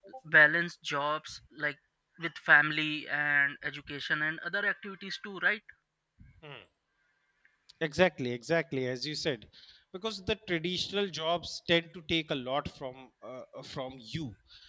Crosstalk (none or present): none